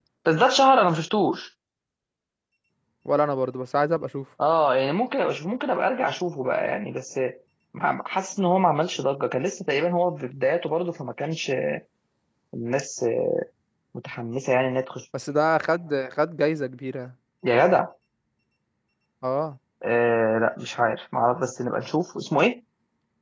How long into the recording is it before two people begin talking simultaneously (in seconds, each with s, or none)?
none